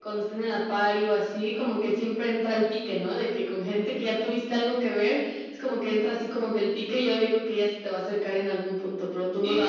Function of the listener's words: taking over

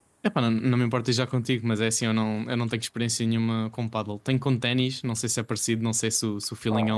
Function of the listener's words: taking over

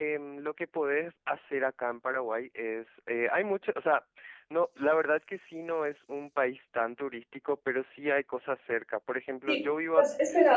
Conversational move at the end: taking over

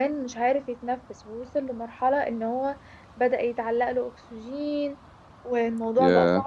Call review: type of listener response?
listening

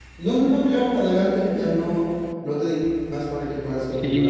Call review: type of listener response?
taking over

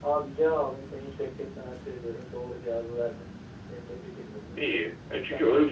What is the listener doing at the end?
taking over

